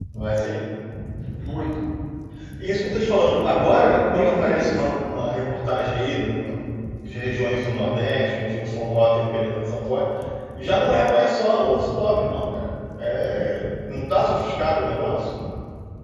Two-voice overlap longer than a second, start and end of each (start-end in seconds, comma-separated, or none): 3.2-4.8